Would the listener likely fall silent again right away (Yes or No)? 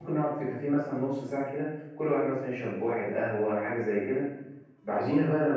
Yes